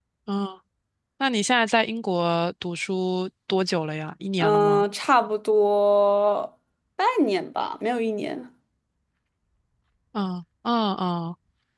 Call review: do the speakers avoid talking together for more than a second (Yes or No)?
Yes